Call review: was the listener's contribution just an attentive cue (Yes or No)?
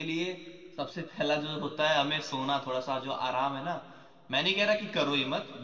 Yes